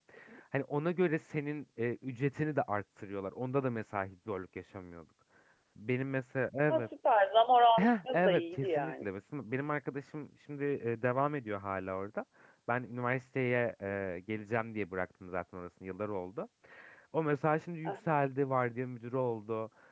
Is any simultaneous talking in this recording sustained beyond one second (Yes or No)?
Yes